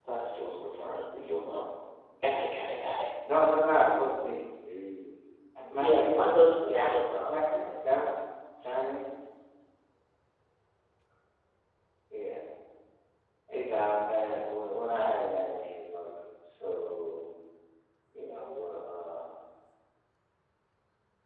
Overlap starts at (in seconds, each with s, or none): 5.8 s